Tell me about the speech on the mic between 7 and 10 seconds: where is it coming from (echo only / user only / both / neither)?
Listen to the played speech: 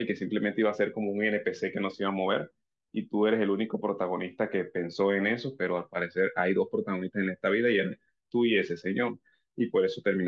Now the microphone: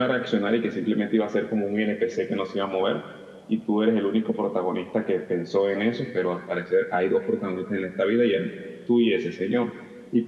echo only